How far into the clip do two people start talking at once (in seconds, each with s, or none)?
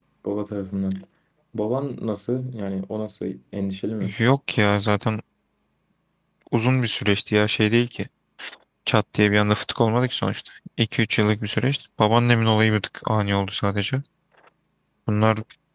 none